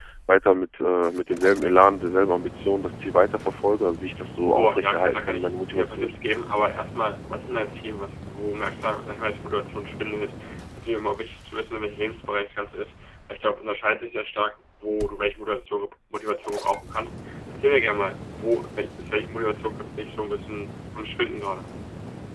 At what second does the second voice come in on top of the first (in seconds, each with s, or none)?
4.5 s